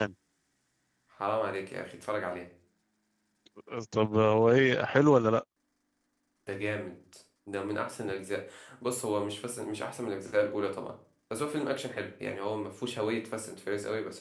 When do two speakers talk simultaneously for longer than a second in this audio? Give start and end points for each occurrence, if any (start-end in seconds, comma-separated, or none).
none